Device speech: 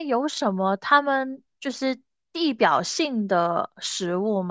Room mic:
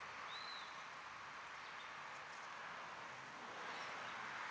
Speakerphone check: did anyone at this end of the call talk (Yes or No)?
No